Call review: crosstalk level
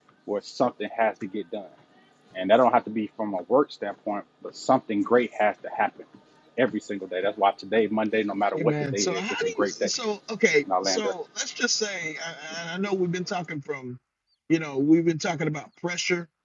present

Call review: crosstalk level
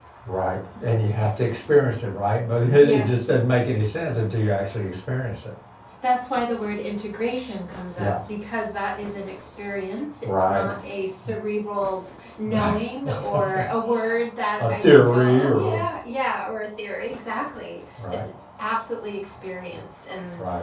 present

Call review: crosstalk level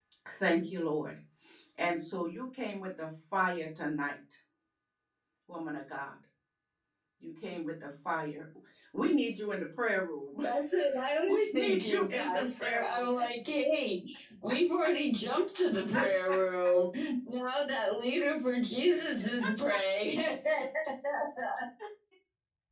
present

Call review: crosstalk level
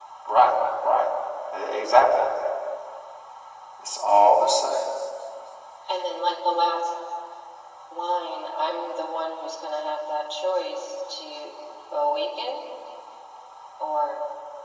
none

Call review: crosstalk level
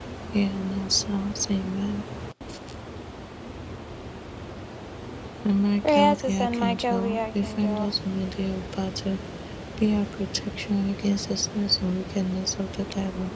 present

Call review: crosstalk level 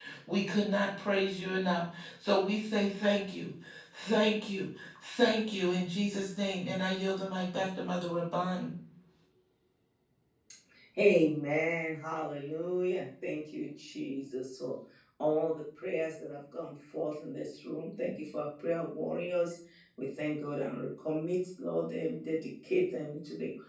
none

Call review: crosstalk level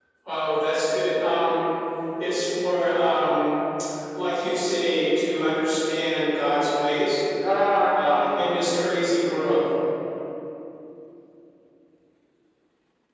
present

